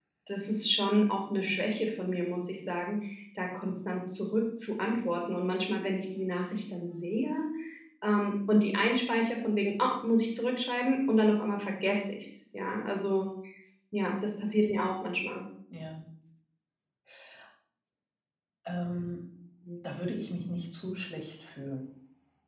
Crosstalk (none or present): none